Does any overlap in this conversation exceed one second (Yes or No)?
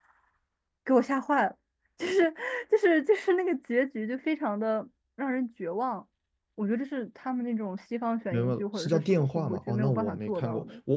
Yes